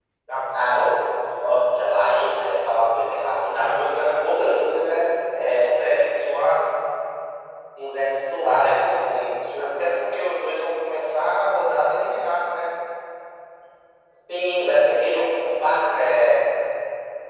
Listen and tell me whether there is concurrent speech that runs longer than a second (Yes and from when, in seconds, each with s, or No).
No